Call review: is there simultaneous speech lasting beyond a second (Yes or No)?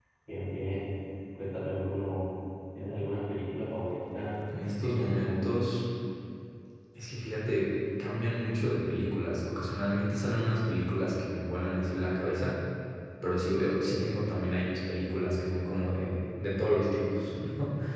Yes